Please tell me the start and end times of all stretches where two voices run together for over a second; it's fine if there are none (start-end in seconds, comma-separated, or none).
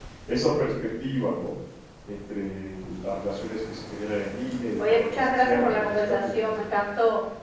4.8-6.5